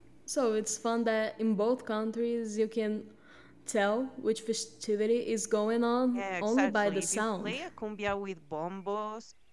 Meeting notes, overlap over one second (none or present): present